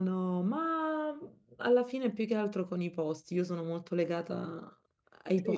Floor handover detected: Yes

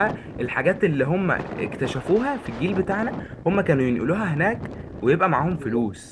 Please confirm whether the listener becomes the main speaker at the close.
Yes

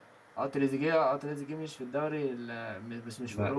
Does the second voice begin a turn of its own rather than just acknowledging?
No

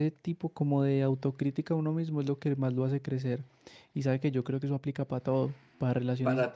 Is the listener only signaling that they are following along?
Yes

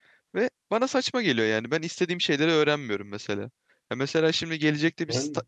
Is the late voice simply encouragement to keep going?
Yes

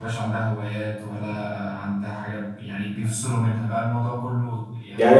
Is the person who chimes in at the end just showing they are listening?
No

